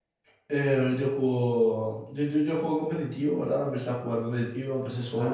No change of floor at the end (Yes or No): Yes